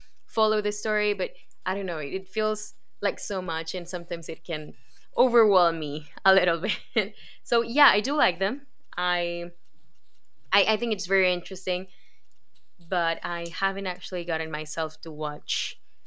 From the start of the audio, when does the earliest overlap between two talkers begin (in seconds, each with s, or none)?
none